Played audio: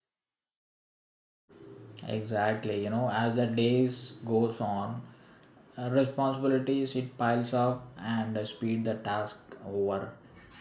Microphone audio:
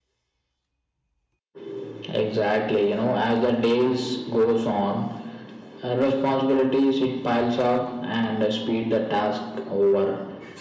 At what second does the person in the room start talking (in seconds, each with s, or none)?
none